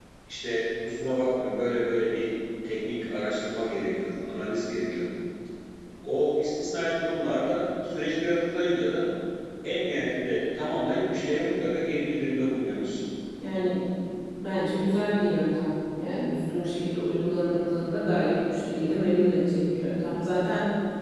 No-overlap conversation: Yes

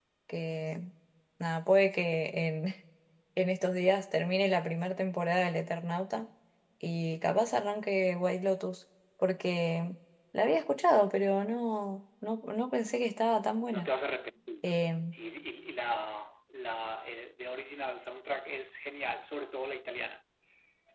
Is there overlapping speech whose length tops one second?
No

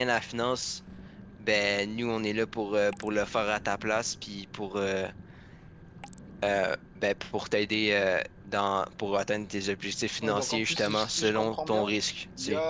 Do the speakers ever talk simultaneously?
Yes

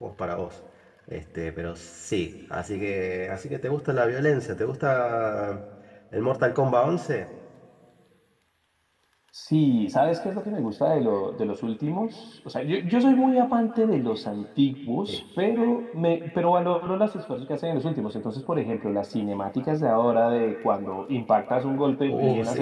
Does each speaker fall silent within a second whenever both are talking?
Yes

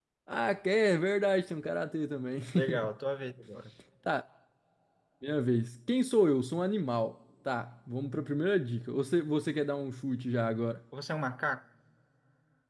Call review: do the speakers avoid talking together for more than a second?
Yes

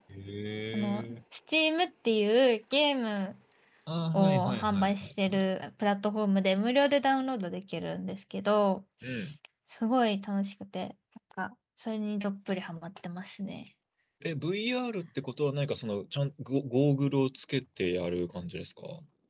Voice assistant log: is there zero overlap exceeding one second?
No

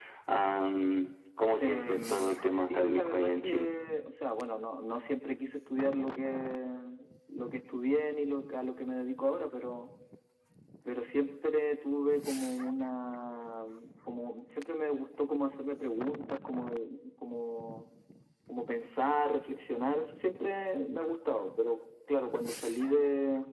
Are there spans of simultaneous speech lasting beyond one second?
Yes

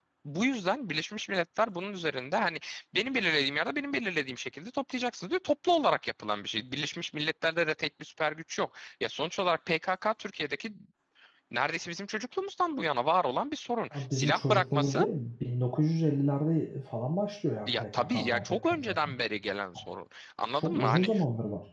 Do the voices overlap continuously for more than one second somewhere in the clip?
Yes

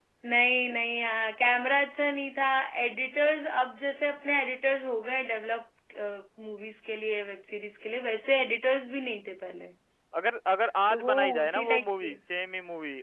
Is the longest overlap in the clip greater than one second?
Yes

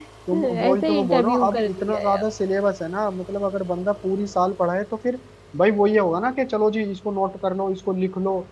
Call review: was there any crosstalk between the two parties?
Yes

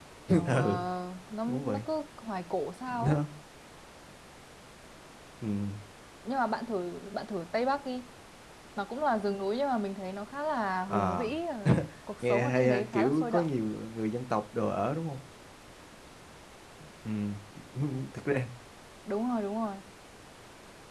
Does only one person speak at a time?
No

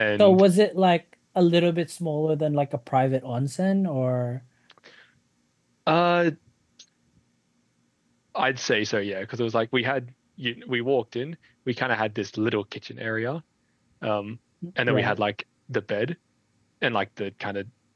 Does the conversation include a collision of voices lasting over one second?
No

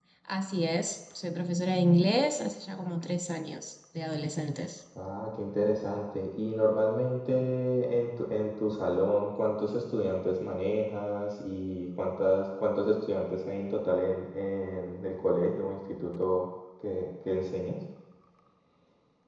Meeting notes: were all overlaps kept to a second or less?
Yes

